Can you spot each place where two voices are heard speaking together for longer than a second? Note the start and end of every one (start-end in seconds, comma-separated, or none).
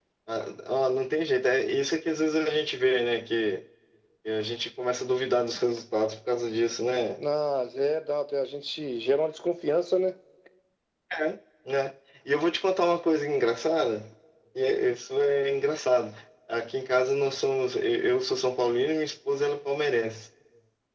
none